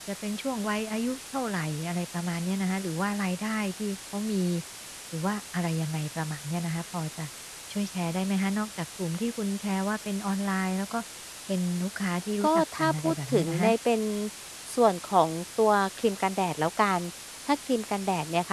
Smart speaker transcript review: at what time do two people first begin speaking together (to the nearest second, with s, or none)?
12 s